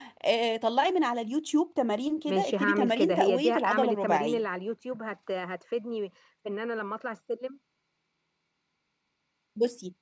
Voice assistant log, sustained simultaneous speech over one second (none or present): present